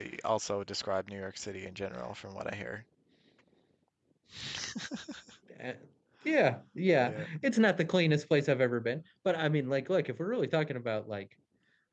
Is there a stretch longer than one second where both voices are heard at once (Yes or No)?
No